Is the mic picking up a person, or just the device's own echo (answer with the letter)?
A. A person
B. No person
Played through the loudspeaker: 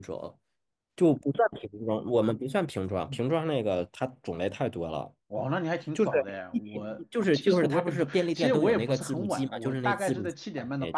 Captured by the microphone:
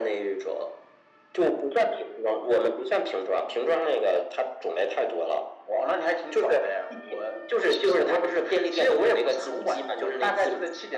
B